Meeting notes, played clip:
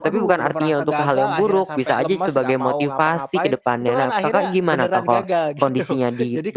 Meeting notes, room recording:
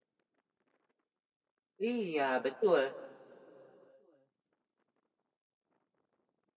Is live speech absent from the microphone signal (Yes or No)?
No